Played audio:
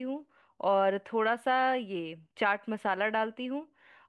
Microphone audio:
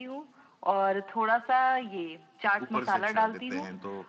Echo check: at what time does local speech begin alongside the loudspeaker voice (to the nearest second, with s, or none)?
3 s